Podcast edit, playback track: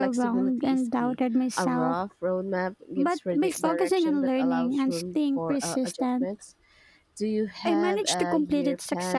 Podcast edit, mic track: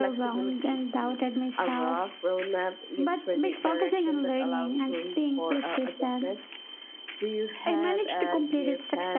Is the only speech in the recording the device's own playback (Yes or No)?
Yes